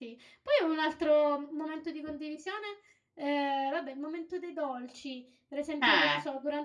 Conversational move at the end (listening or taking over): listening